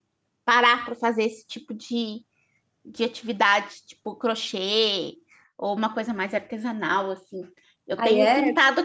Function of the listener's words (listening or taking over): listening